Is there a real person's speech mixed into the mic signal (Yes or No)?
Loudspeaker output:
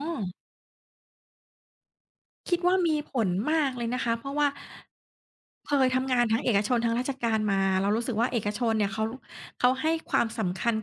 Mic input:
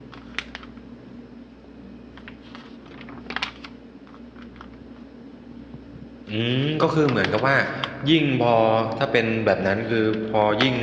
Yes